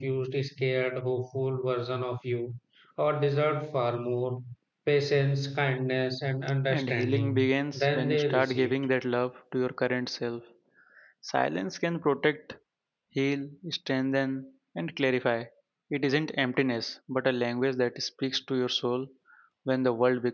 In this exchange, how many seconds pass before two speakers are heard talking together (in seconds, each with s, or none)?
6.7 s